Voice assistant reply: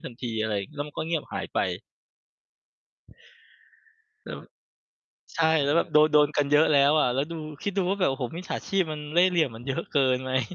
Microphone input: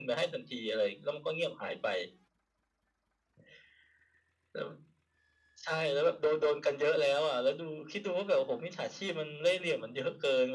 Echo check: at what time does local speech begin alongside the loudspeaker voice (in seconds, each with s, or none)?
none